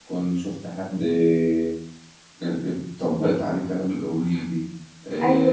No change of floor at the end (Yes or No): No